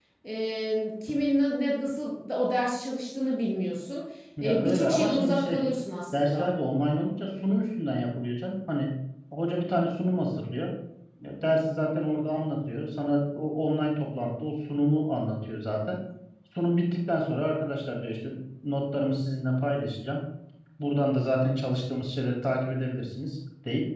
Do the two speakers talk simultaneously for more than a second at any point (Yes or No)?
Yes